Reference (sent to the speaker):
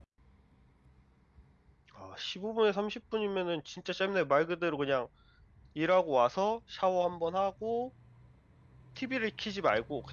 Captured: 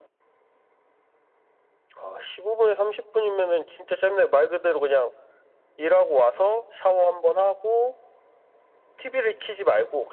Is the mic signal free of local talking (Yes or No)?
Yes